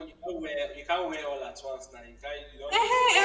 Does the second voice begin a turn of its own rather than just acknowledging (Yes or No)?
Yes